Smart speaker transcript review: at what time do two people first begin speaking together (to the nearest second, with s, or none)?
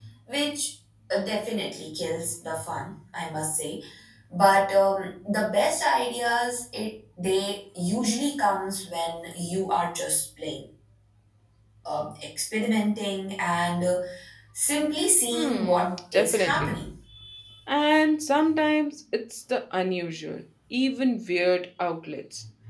15 s